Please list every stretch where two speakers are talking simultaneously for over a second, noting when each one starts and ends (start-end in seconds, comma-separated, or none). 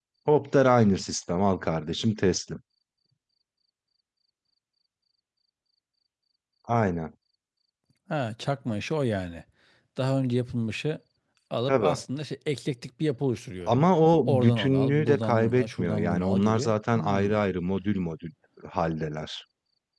14.3-17.4